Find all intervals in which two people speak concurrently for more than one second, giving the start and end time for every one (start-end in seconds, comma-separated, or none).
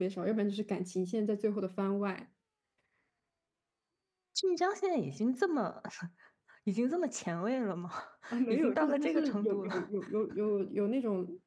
8.5-9.8